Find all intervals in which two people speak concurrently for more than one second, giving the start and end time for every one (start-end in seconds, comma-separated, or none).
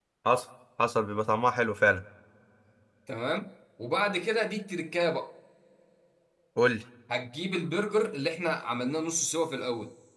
none